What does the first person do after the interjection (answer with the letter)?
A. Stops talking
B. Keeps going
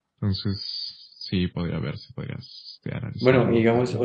A